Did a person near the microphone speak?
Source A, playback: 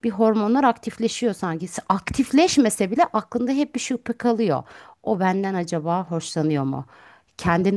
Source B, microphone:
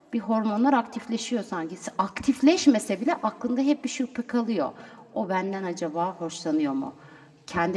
No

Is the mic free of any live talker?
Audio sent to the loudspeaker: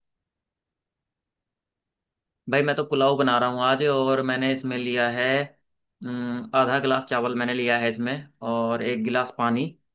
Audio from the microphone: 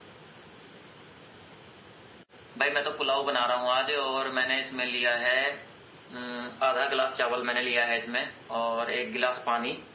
Yes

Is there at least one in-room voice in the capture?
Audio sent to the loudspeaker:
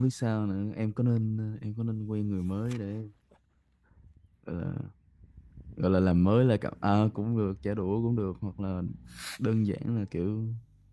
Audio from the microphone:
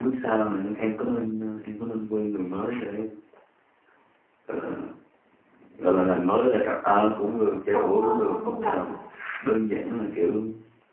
Yes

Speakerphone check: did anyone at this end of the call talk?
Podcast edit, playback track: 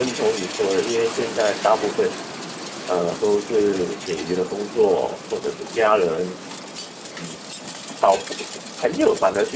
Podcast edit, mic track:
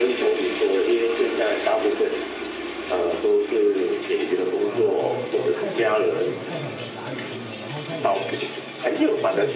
Yes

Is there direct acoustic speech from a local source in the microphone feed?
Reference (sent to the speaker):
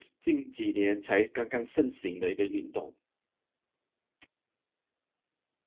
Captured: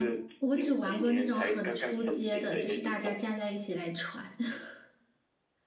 Yes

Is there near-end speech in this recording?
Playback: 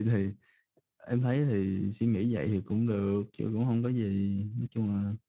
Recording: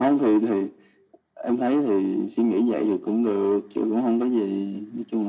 No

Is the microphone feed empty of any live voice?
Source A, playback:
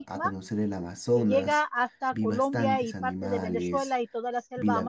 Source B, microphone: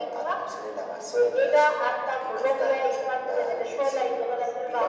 Yes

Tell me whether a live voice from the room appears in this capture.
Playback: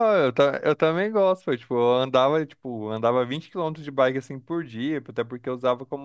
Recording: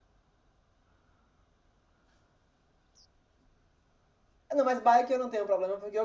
Yes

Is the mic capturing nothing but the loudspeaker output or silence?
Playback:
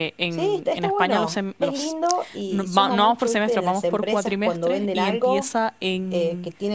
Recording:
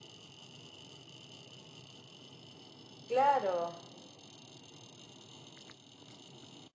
No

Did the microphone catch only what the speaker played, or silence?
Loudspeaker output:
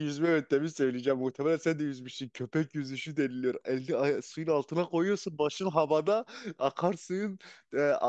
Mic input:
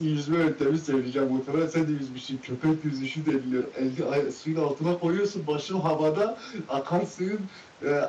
Yes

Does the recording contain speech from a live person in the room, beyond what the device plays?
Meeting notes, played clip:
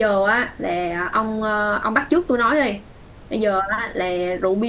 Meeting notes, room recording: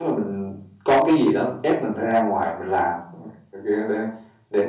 Yes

